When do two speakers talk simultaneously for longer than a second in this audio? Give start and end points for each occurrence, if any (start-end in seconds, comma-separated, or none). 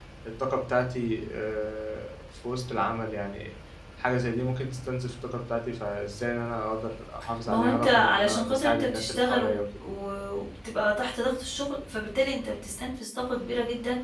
7.5-9.6